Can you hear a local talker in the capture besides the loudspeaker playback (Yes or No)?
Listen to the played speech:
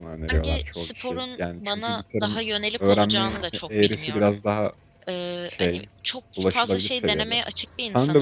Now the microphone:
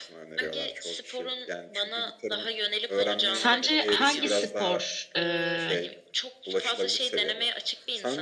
Yes